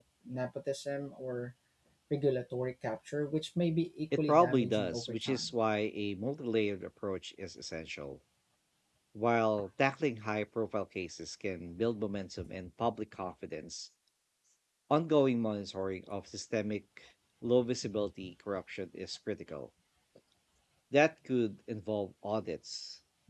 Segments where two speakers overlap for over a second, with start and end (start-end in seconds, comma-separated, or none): 4.2-5.5